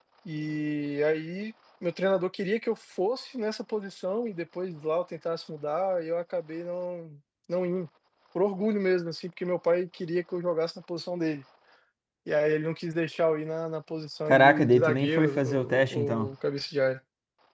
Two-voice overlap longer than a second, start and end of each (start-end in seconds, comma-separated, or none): 14.3-16.3